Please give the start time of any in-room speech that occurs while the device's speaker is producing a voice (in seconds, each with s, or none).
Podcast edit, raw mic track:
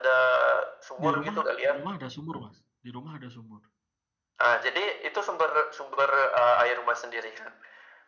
1.0 s